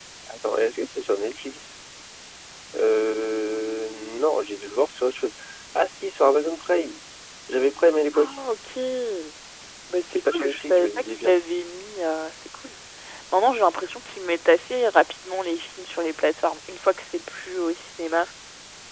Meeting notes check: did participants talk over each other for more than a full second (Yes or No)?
Yes